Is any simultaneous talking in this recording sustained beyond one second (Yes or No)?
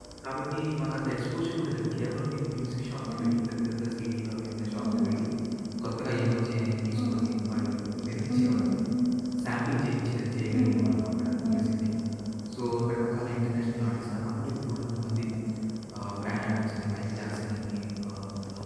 No